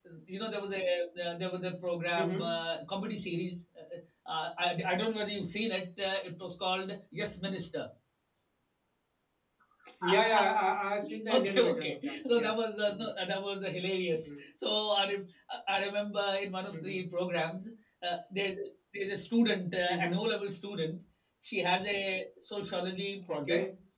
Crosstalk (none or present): present